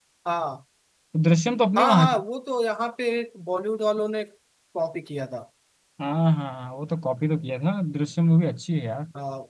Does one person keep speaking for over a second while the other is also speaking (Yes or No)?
No